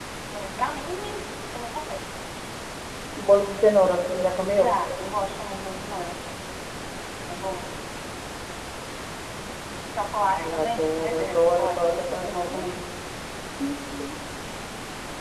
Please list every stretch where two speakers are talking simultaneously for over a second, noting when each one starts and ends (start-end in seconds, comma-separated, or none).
10.3-12.6